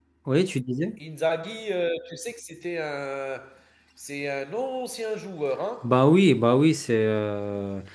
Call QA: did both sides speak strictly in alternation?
Yes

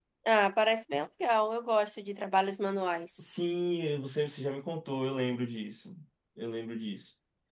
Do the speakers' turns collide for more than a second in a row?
No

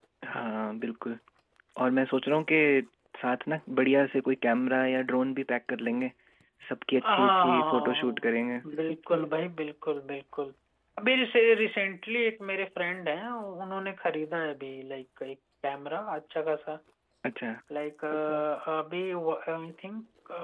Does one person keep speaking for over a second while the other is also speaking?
Yes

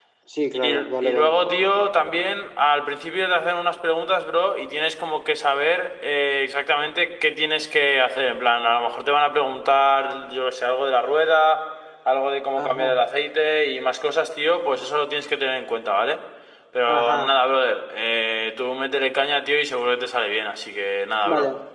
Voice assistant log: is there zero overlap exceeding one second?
No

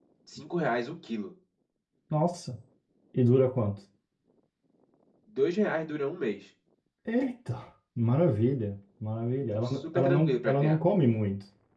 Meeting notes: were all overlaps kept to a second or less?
No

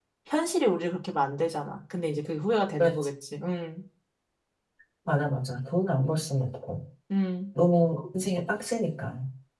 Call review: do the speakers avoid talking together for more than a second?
Yes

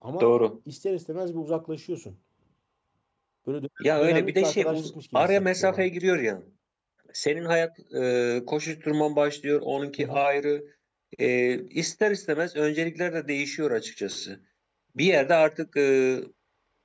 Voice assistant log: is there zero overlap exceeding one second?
No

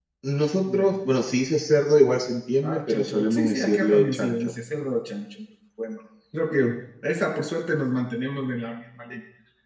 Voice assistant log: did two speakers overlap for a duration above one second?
Yes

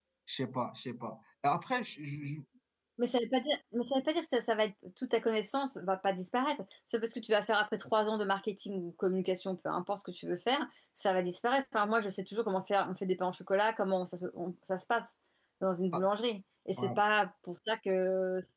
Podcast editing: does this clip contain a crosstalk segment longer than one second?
No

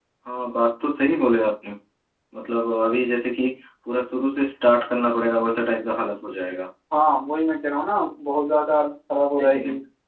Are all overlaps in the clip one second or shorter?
Yes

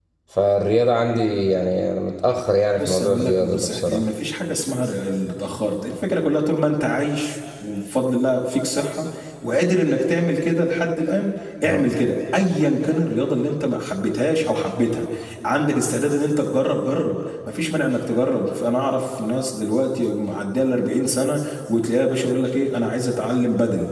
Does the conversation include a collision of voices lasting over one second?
Yes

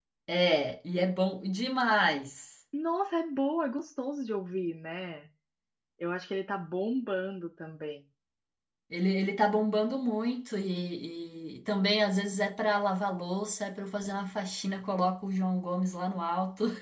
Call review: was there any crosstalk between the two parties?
No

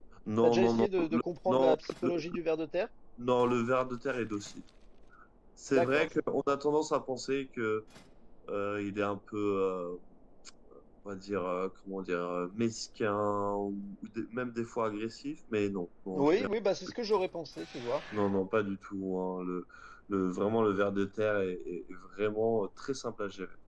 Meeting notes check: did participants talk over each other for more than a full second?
Yes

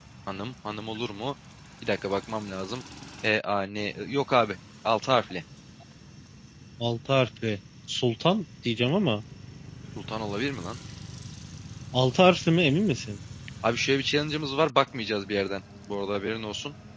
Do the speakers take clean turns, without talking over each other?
Yes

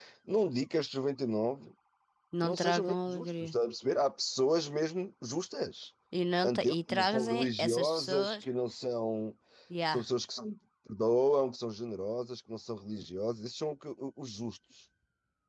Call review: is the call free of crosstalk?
No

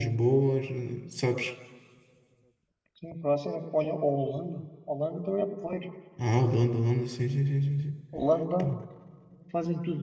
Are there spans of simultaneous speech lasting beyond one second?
No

